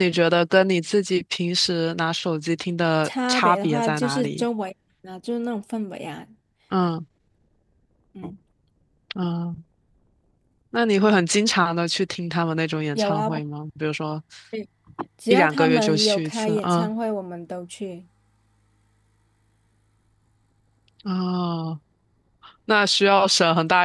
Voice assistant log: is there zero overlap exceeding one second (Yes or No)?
No